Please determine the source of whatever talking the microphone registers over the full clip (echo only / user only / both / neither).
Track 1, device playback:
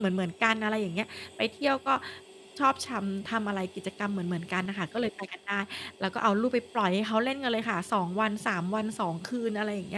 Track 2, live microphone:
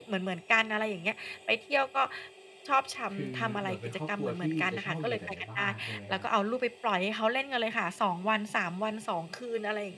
both